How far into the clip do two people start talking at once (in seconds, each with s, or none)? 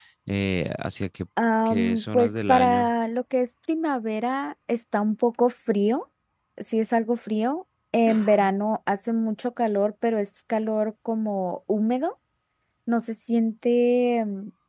1.7 s